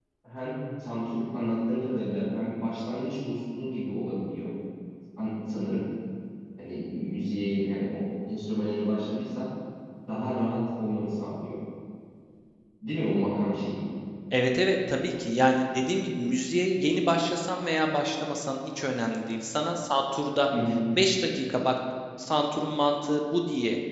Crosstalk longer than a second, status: none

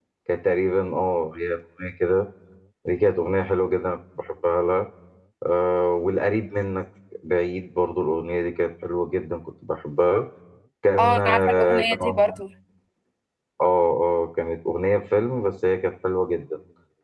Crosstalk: present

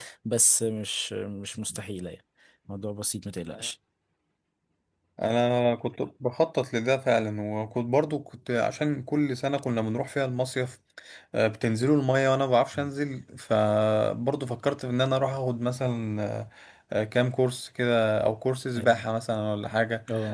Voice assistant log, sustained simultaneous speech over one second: none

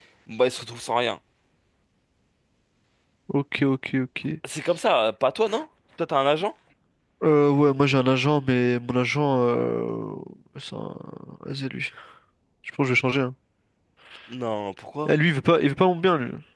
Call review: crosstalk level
none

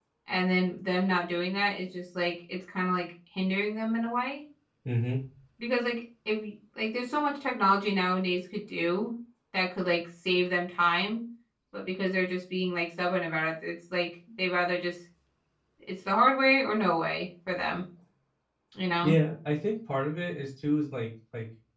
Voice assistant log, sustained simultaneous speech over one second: none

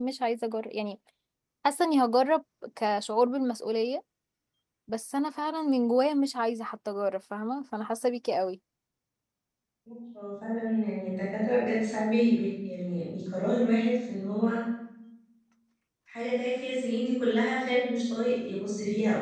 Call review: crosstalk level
none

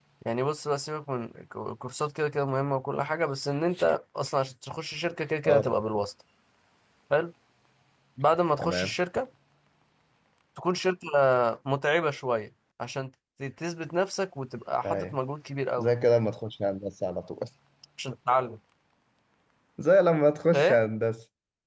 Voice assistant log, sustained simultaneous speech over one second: none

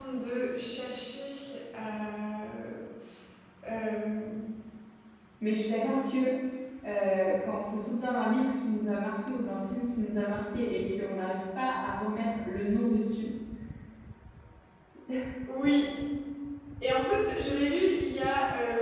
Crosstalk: none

